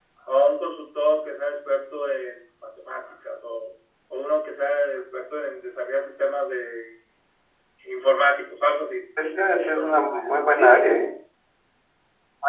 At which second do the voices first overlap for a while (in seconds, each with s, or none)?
9.6 s